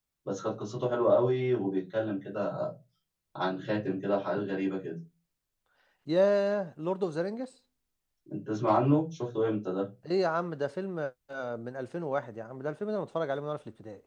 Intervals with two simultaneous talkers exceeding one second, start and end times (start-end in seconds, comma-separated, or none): none